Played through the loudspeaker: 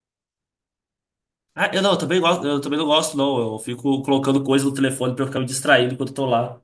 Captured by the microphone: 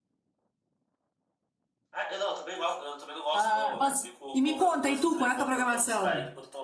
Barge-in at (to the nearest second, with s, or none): 3 s